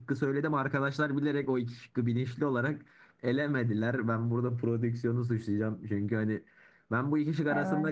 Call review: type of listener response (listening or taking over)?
listening